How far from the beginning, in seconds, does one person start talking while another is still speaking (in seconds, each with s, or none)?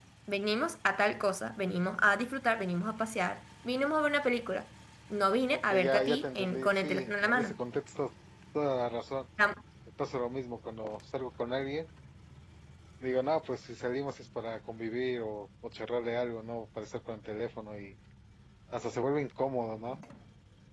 5.7 s